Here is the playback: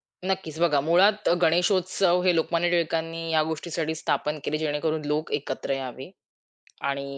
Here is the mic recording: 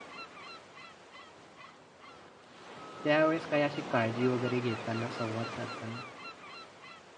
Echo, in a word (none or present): none